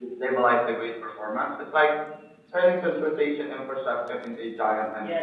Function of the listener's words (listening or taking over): taking over